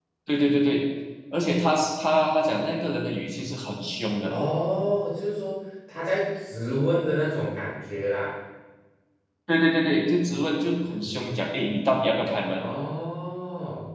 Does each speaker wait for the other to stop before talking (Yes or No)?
Yes